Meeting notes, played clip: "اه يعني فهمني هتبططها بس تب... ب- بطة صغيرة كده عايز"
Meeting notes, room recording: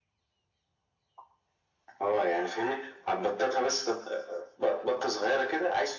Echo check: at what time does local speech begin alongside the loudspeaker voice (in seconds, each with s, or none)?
none